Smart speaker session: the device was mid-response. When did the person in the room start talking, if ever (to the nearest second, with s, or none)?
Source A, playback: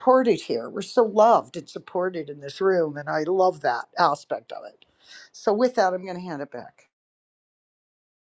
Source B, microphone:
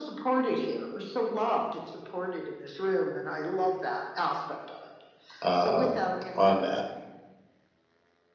5 s